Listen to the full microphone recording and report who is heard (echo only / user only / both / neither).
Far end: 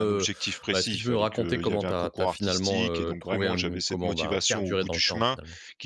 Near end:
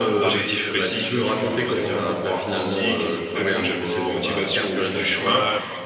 both